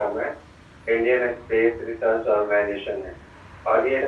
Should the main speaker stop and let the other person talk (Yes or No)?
No